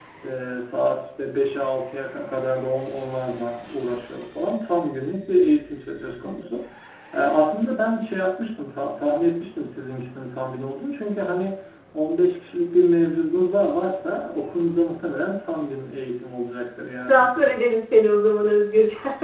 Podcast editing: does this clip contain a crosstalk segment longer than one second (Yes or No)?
No